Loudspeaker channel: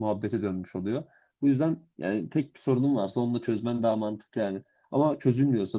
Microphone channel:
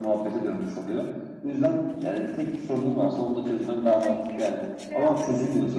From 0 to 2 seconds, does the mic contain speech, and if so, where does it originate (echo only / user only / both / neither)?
echo only